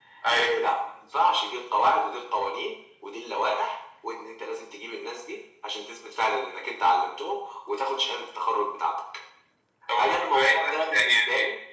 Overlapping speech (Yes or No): Yes